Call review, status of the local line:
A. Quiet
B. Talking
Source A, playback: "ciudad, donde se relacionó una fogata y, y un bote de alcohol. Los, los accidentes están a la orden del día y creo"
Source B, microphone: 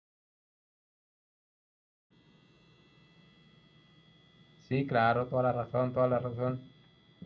B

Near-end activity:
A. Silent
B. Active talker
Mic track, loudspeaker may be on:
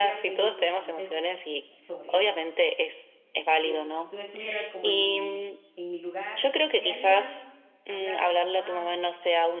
B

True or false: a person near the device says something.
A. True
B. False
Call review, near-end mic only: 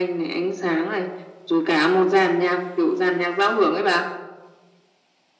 B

